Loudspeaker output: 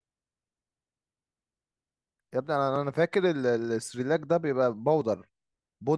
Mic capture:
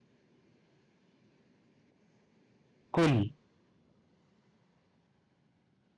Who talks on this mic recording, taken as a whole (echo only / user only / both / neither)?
user only